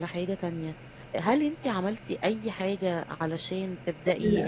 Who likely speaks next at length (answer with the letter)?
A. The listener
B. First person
B